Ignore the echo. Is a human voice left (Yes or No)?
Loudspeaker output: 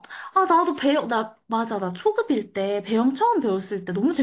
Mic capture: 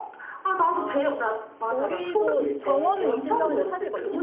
Yes